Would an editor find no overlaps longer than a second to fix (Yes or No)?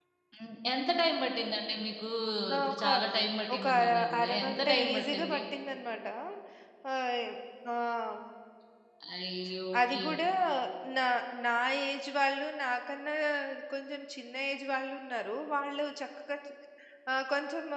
No